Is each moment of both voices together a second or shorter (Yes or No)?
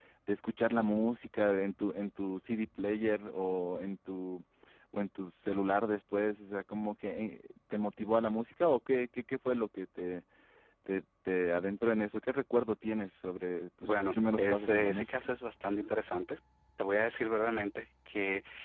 No